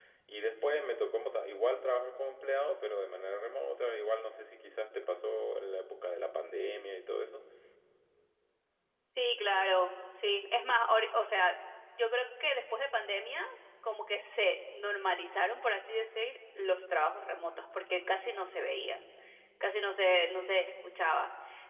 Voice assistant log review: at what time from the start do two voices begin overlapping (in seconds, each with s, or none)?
none